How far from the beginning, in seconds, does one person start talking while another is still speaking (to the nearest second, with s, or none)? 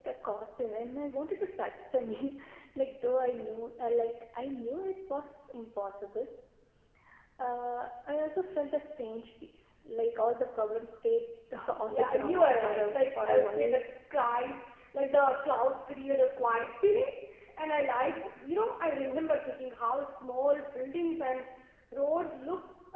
12 s